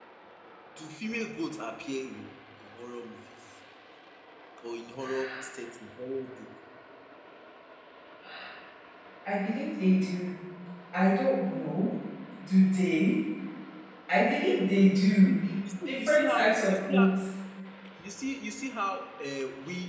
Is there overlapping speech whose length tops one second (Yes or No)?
Yes